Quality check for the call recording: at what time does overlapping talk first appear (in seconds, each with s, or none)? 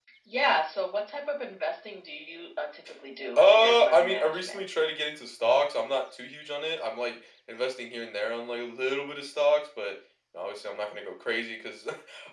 3.4 s